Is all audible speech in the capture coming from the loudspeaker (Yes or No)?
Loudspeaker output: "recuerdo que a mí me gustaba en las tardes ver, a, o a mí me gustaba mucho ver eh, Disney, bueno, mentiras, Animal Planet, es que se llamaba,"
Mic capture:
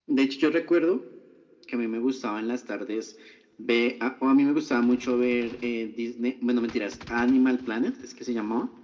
Yes